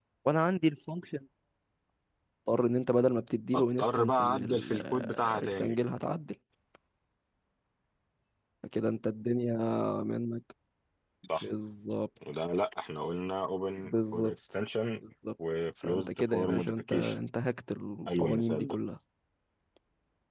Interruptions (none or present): present